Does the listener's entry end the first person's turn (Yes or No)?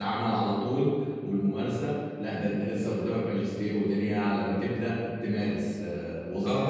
Yes